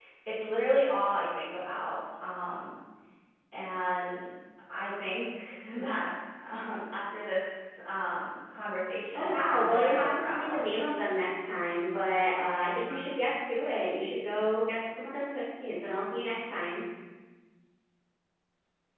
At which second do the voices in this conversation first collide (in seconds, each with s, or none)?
9.2 s